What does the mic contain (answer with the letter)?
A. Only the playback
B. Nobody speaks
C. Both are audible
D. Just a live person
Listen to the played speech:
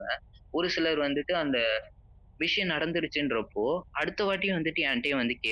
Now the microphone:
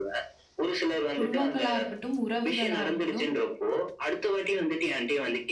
C